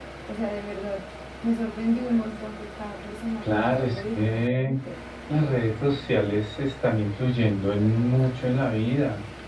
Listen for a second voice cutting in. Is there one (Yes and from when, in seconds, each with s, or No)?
Yes, from 3.4 s